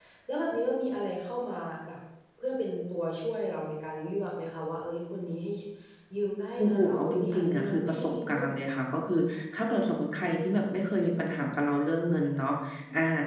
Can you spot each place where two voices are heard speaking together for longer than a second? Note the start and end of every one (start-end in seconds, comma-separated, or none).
6.6-8.5